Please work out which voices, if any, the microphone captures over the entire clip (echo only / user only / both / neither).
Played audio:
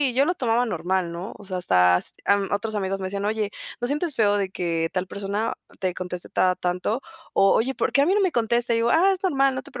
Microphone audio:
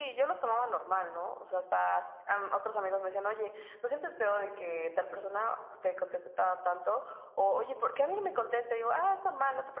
echo only